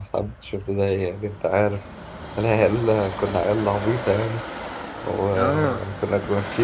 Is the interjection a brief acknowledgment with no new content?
Yes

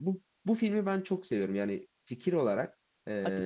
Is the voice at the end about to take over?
No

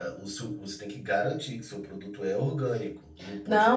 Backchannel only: No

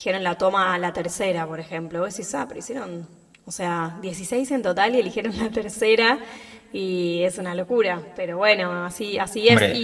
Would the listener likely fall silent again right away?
Yes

